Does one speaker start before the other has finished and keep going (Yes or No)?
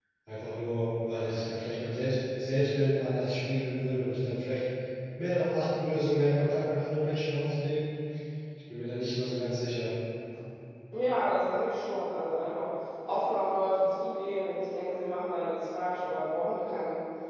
No